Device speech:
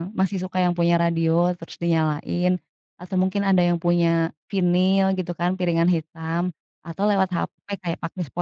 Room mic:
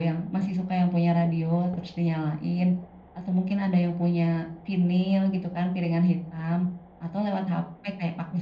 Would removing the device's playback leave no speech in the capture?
Yes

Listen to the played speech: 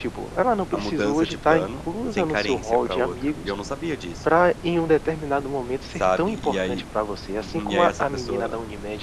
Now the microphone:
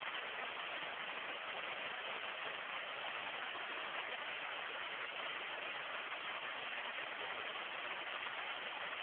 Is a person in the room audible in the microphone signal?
No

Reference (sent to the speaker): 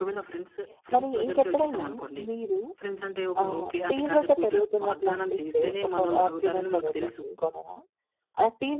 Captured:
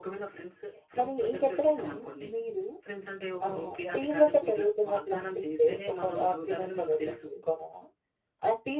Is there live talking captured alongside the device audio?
No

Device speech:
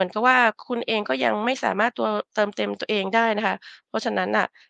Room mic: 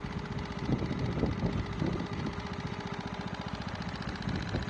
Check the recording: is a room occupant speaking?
No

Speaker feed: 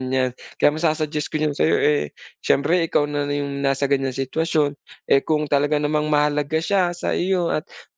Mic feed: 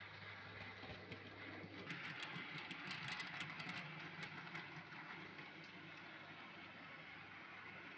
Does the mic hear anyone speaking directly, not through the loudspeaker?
No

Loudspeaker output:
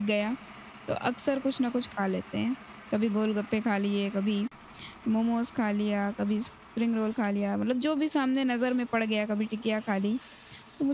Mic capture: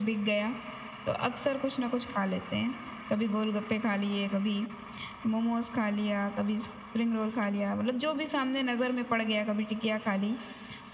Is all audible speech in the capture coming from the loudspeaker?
Yes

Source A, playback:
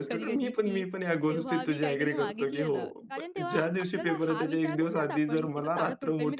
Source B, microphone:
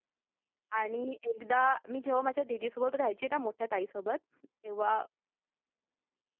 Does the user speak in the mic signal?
Yes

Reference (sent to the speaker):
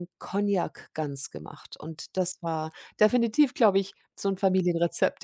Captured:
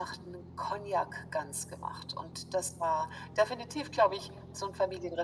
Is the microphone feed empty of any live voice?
Yes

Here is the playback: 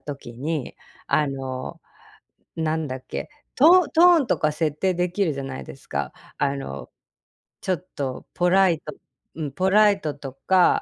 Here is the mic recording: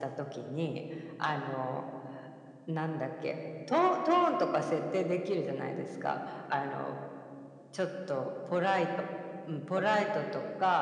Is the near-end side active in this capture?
No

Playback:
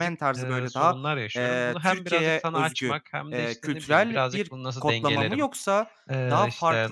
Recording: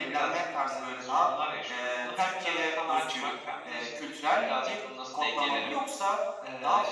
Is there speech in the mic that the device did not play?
No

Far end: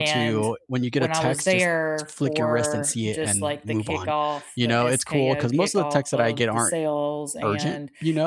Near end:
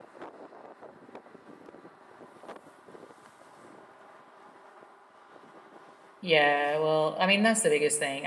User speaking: Yes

